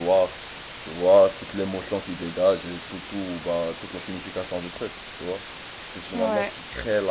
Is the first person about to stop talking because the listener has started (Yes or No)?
No